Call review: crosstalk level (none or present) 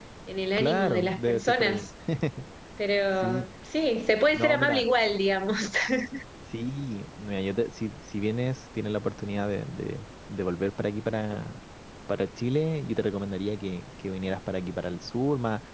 present